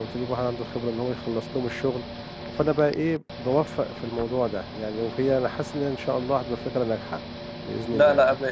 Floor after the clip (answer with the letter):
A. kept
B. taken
B